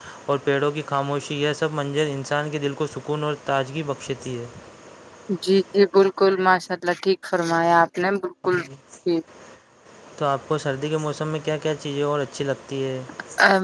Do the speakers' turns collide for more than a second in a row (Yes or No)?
No